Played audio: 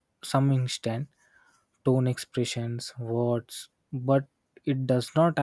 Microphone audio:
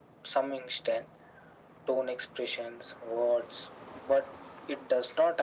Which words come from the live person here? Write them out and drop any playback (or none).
none